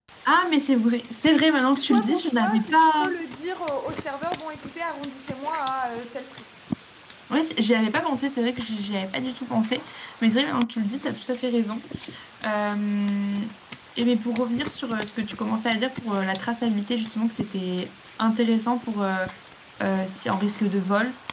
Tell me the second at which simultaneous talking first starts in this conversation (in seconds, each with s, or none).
1.8 s